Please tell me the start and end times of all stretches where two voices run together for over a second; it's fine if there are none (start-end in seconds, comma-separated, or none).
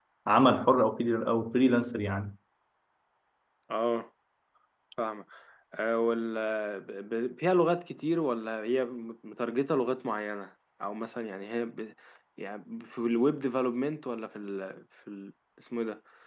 none